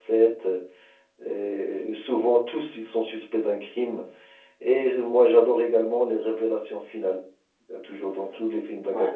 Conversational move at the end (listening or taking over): listening